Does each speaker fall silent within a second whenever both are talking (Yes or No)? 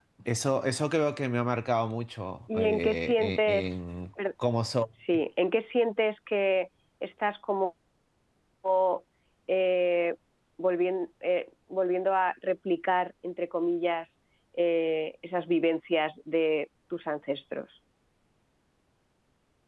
No